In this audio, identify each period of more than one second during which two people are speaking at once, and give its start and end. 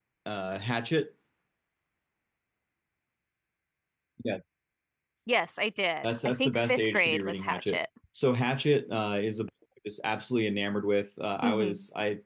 6.0-7.8

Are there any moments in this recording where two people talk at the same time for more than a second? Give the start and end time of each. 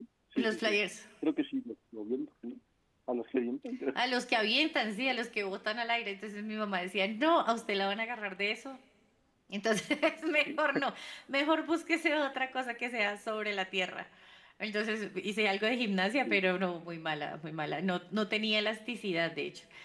none

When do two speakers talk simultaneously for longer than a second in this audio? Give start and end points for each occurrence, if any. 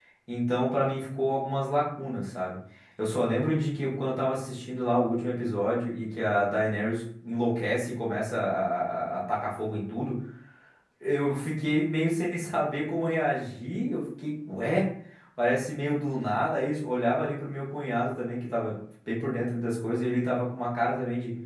none

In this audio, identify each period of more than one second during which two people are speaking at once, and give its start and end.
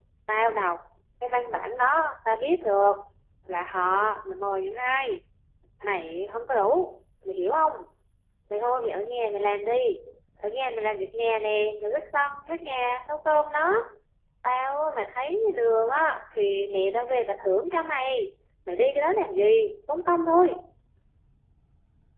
none

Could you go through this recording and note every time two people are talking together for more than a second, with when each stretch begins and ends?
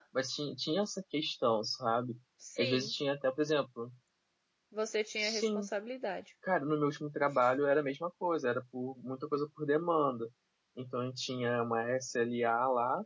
none

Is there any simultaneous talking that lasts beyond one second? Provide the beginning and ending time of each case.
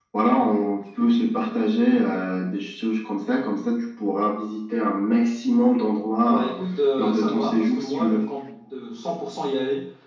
7.0-8.2

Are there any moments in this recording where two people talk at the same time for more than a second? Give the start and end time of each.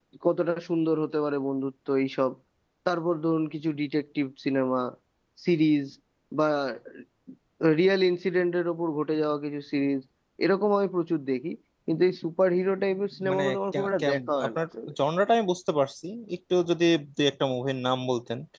13.3-14.9

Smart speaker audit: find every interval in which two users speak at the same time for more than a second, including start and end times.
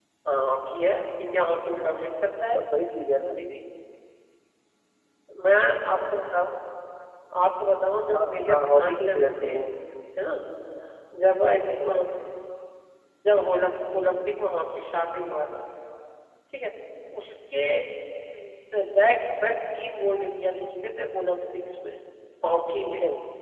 8.2-9.7

